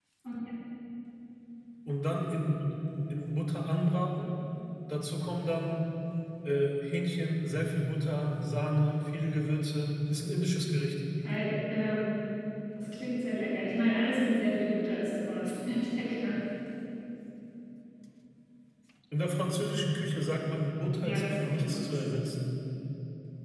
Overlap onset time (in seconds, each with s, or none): 21.0 s